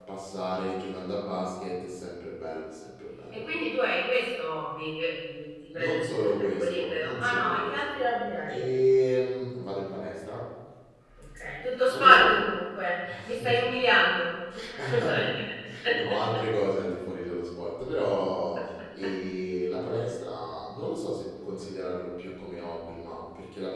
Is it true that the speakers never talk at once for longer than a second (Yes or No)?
No